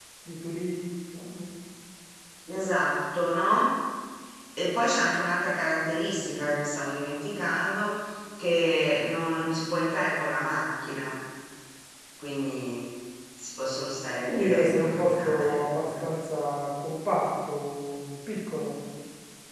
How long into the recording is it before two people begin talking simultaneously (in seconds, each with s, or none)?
14.3 s